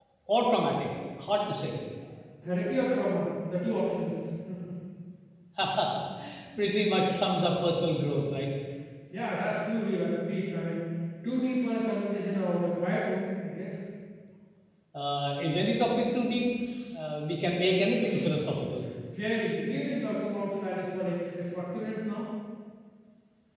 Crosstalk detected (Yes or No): No